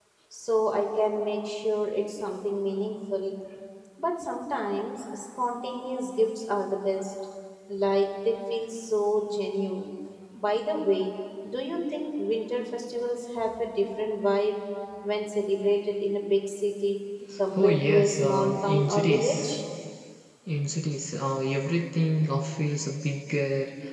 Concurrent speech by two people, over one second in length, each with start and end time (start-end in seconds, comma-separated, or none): 17.6-19.6